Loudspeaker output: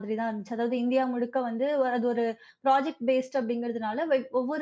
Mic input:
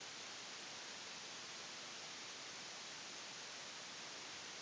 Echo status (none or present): none